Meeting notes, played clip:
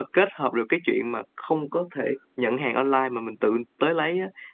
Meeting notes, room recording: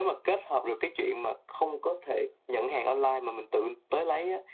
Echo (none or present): present